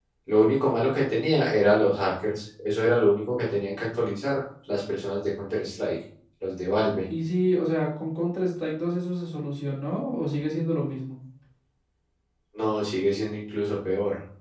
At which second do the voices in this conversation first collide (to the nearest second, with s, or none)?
none